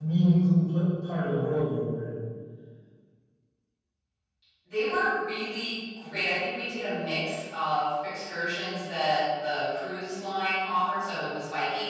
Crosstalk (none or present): none